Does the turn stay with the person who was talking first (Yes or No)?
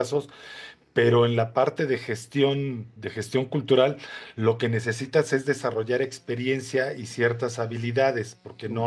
No